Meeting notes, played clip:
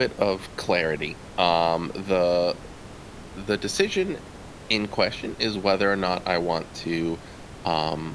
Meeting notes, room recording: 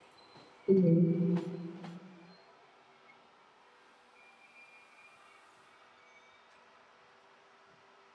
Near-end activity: present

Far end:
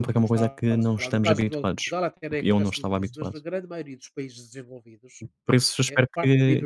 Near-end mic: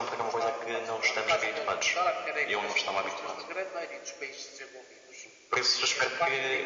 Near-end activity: none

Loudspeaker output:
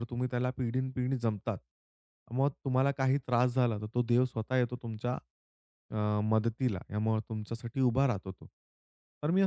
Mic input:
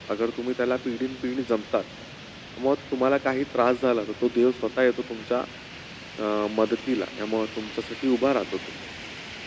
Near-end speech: none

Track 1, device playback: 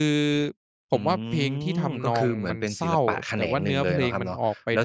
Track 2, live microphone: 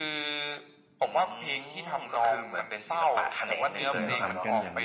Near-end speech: present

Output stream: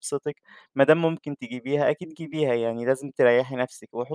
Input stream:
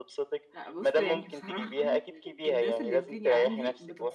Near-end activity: present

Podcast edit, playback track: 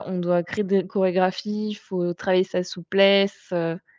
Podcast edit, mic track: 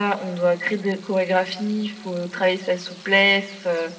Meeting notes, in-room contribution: none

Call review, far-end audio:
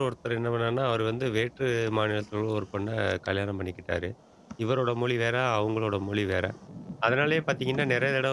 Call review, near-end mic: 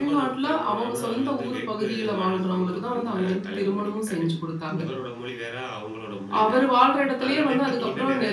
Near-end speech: present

